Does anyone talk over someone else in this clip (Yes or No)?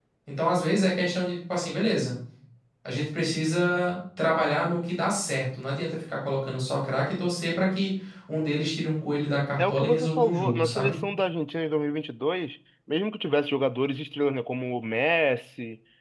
Yes